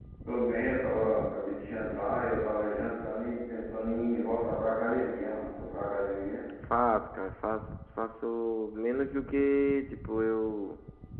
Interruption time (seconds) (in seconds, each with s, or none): none